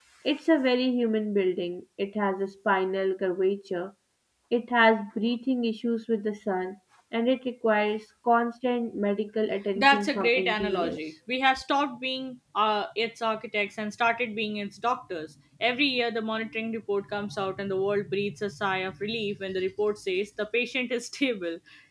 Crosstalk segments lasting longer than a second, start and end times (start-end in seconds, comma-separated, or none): 9.8-11.0